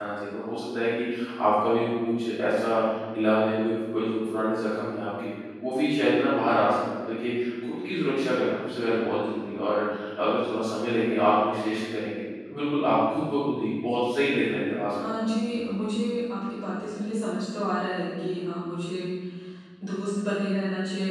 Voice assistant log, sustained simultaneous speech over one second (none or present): none